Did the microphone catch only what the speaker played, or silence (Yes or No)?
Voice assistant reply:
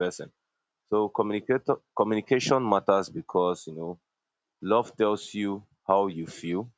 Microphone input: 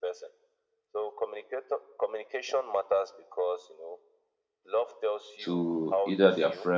No